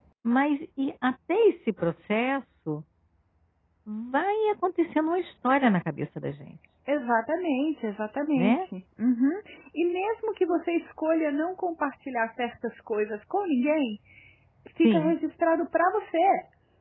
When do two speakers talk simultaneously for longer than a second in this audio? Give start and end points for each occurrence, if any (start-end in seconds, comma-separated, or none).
none